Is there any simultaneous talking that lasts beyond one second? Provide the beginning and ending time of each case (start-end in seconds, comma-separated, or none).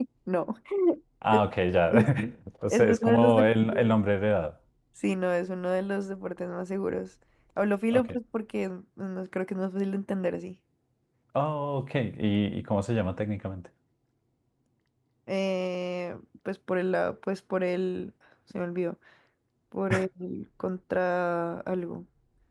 2.7-4.0